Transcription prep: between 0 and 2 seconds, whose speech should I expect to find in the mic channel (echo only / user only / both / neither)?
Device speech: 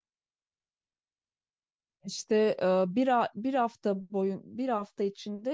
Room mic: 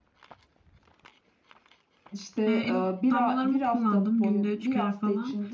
neither